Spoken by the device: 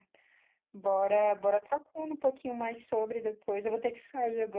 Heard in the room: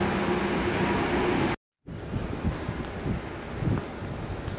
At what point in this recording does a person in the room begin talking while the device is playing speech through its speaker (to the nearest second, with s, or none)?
none